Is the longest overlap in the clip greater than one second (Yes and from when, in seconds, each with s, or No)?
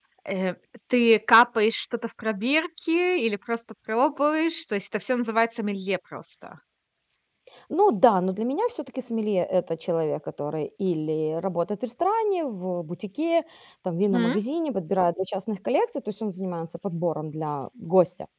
No